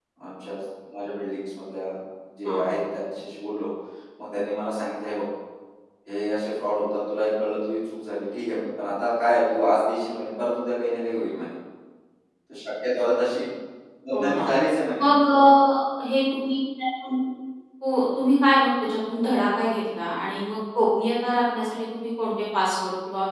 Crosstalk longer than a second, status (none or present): none